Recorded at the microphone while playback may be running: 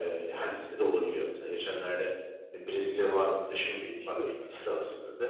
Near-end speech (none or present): present